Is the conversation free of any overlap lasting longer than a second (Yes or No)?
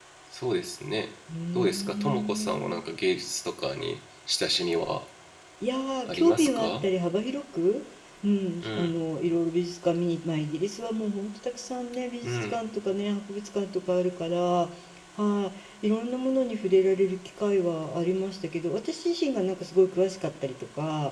No